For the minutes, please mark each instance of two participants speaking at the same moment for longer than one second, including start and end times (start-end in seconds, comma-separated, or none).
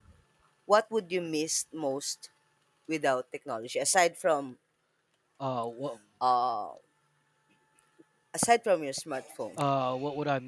none